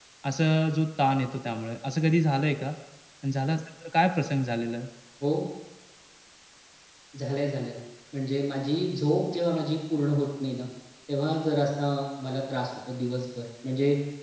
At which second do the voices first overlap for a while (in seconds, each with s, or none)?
none